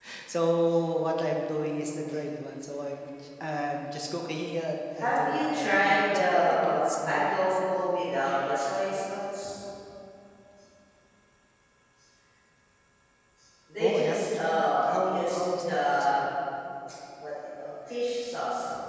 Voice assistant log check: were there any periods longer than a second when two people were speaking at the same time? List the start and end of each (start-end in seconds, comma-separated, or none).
5.0-7.8, 13.8-16.3